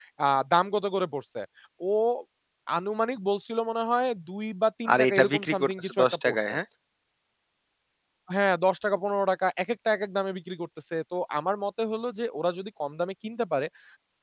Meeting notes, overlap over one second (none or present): present